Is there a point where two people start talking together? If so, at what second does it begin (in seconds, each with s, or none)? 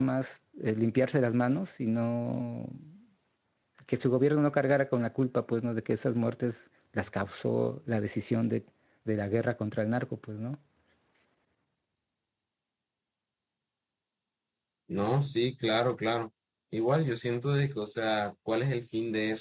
none